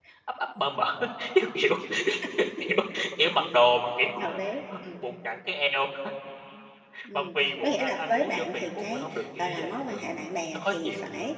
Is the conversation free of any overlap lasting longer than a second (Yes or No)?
No